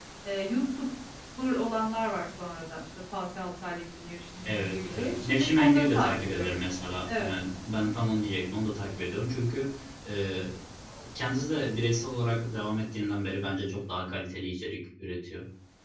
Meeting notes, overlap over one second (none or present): present